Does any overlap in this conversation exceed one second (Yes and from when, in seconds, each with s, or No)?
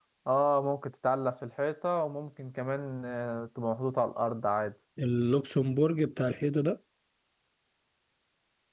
No